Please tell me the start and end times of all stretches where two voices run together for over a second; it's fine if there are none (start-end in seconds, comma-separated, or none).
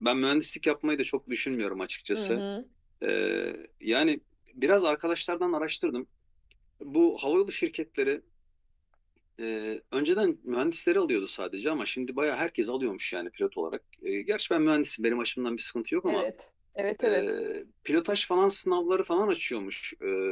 none